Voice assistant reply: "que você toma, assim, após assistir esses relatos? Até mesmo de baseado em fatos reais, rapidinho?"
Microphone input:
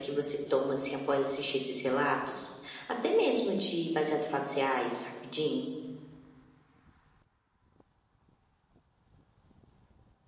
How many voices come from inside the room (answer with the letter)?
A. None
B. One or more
A